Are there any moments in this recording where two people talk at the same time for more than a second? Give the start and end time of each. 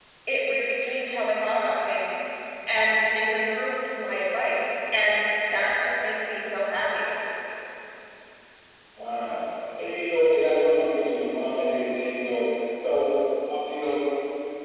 none

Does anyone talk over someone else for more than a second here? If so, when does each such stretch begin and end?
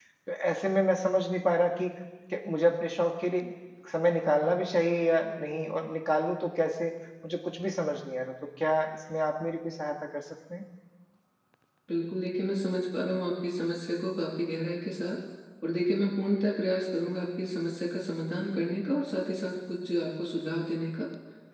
none

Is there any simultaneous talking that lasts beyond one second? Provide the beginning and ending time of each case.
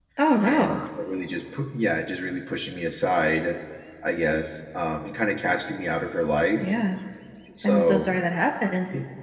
none

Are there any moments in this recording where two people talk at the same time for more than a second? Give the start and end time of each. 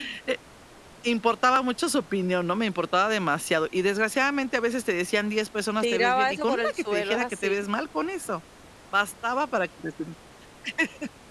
5.8-7.6

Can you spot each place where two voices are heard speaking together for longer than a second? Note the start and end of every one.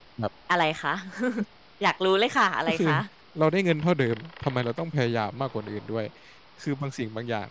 none

